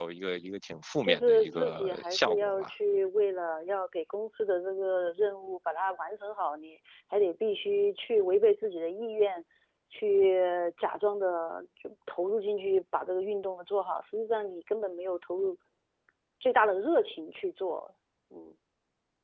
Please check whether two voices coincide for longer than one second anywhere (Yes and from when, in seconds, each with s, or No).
Yes, from 1.0 s